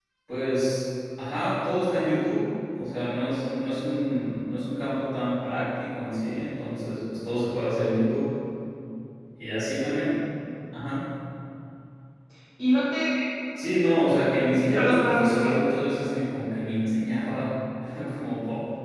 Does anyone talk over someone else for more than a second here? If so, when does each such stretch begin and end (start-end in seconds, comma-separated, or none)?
14.3-15.5